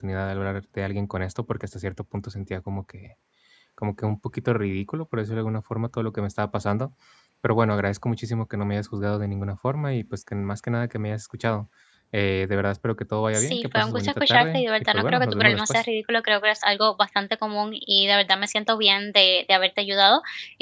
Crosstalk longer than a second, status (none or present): present